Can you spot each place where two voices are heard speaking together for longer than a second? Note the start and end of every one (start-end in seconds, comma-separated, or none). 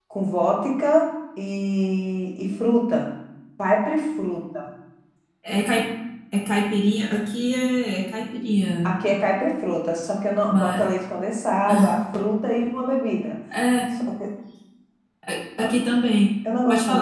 none